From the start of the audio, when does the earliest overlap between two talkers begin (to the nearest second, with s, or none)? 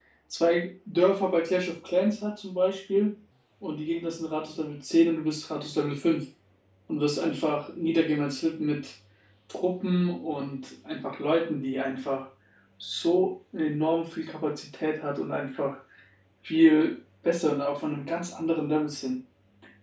none